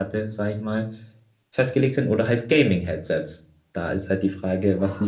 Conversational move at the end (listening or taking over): taking over